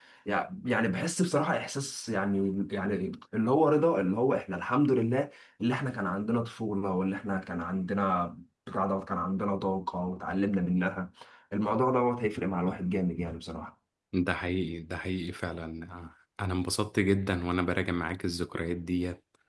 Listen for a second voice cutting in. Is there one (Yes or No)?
No